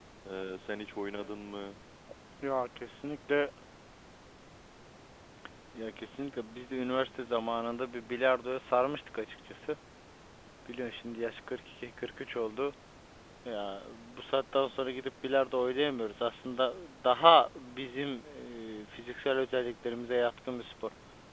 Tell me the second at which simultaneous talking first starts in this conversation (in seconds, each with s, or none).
none